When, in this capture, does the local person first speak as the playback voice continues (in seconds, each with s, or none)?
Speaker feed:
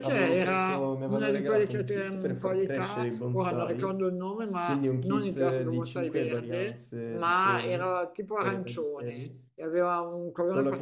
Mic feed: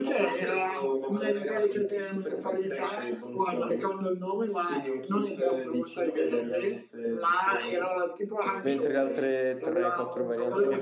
8.6 s